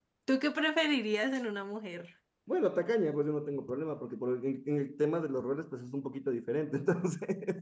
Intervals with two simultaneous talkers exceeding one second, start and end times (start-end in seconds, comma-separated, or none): none